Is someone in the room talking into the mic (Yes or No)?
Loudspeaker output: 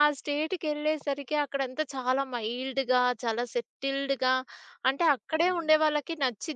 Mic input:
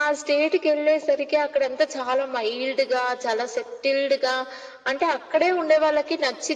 No